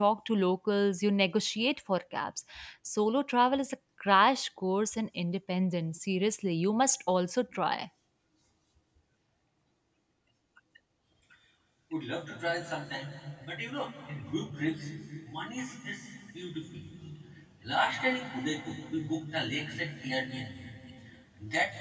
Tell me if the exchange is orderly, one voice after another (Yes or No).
Yes